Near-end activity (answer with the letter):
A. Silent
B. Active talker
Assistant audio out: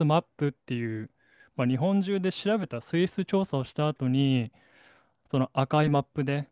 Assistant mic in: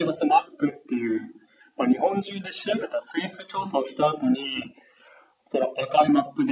A